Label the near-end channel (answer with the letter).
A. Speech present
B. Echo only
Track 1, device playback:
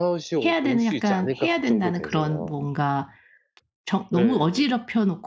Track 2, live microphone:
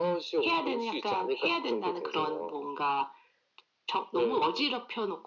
B